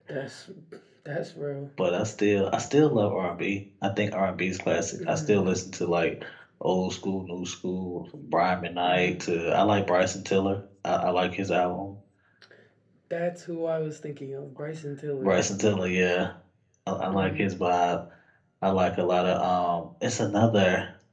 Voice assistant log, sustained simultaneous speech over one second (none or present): none